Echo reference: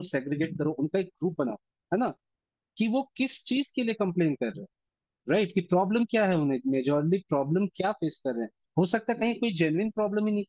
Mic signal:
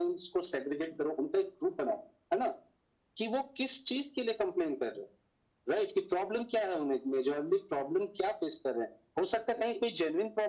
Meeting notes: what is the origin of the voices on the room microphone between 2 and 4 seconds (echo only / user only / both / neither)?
echo only